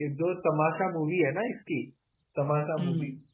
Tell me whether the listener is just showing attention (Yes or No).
Yes